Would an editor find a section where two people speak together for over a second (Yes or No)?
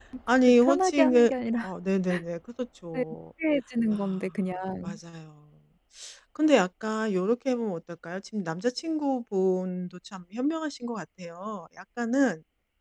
Yes